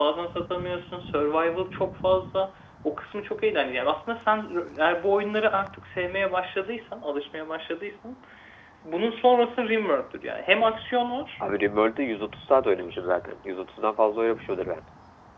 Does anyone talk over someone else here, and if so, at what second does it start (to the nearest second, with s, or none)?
none